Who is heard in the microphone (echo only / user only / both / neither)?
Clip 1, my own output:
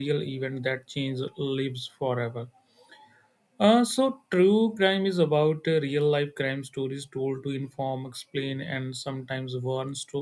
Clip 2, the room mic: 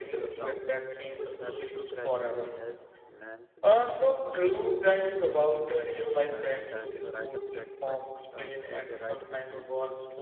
both